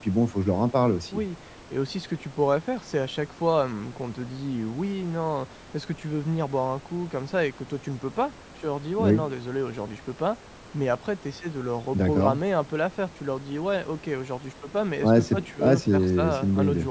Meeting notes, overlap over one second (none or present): present